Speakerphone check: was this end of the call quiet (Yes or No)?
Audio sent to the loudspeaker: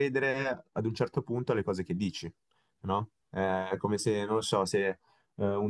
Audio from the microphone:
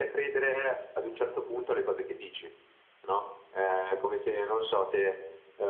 Yes